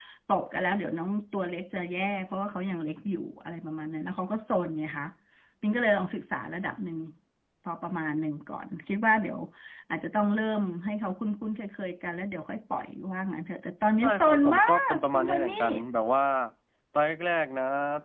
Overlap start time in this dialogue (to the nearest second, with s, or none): 14 s